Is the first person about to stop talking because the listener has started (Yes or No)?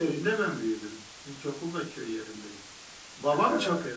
No